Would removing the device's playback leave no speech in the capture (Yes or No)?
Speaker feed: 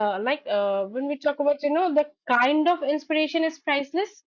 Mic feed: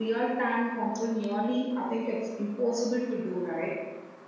No